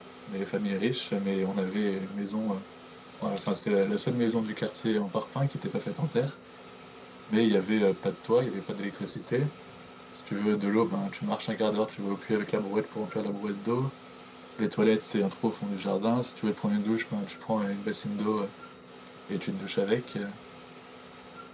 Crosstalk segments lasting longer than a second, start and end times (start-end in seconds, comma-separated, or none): none